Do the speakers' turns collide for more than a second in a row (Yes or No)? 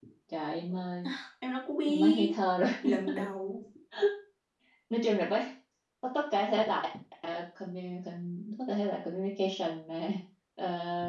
No